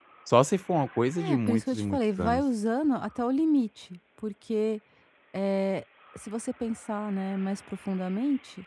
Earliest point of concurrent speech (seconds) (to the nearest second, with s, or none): 1 s